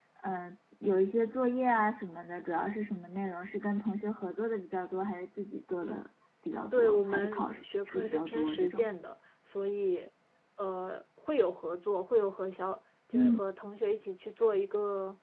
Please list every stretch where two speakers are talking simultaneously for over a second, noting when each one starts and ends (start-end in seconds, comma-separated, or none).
6.7-8.8